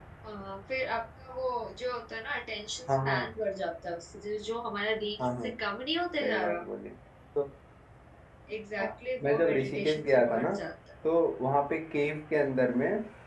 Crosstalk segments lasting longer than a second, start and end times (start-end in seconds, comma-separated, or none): 9.2-10.5